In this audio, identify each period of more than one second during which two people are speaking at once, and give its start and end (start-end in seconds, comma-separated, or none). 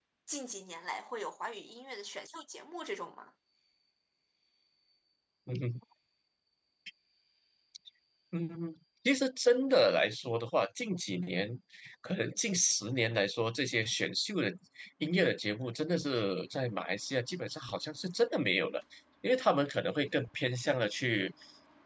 none